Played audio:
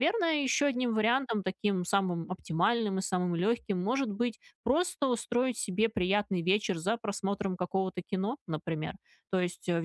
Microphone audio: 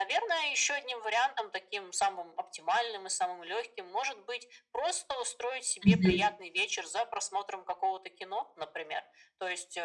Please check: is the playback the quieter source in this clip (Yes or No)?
Yes